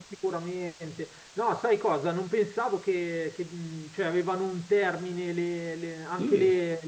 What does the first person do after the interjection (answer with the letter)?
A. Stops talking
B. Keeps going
B